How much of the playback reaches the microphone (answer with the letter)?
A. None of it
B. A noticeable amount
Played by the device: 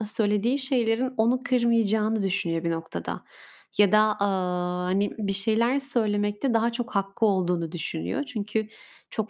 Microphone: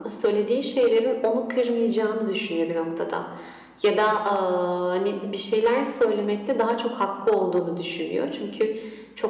B